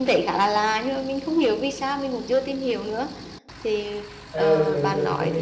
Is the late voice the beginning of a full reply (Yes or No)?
Yes